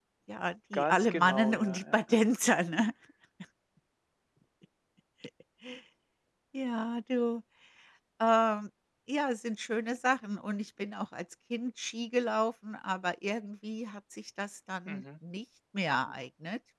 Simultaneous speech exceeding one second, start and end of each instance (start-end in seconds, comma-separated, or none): 0.7-2.2